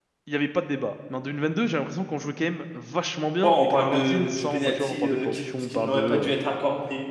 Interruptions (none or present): present